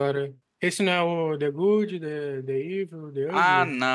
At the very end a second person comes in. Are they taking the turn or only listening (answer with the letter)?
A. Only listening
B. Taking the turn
B